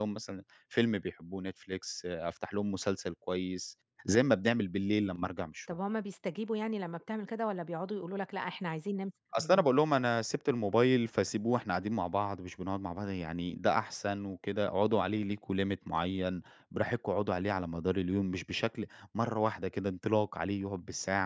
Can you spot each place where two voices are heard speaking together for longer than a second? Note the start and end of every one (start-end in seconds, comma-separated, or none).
none